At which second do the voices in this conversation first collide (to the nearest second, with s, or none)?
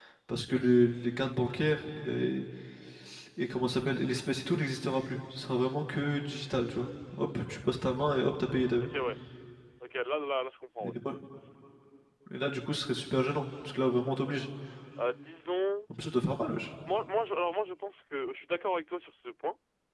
none